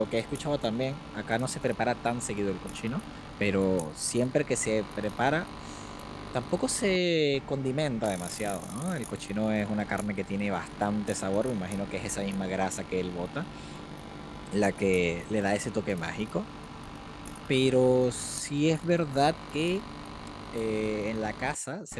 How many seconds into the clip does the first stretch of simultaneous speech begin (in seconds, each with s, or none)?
none